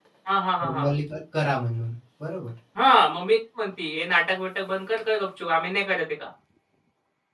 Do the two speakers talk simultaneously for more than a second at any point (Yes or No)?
No